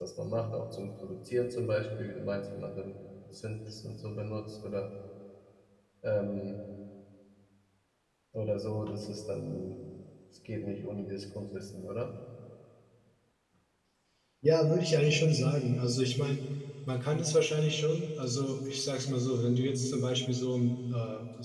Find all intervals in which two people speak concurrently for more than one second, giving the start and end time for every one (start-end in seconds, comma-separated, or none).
none